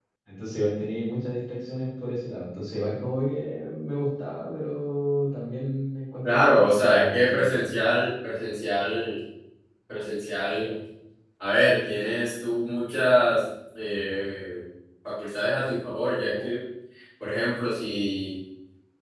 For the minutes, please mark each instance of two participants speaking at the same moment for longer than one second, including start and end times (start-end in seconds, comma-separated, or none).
6.3-7.7